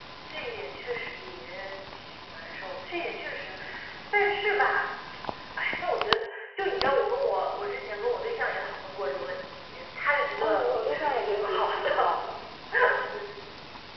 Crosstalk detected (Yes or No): Yes